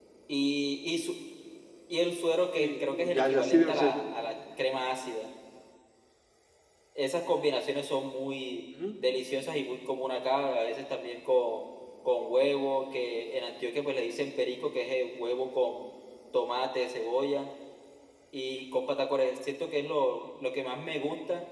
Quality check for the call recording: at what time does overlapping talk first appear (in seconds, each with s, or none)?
2.6 s